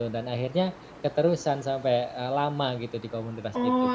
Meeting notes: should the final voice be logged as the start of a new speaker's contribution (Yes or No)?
Yes